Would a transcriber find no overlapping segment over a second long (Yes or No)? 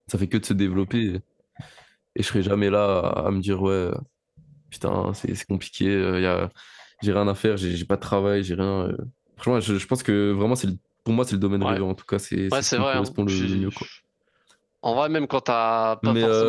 No